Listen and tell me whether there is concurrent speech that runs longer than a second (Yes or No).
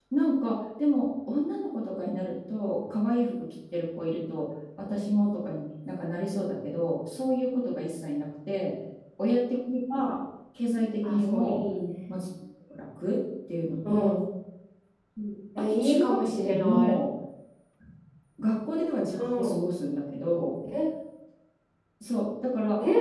Yes